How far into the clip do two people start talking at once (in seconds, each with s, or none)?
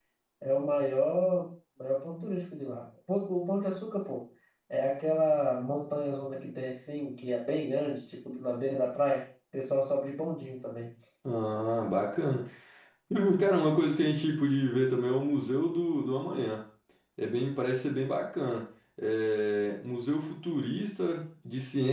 none